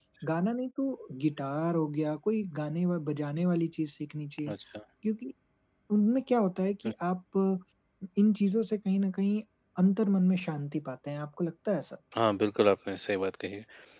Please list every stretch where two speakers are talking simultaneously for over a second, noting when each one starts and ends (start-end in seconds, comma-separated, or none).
none